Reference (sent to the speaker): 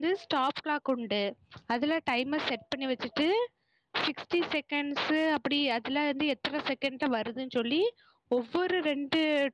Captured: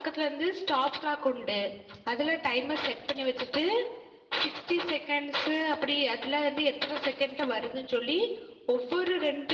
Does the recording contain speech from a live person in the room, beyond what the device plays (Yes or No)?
No